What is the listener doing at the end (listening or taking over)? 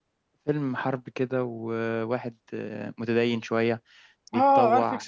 taking over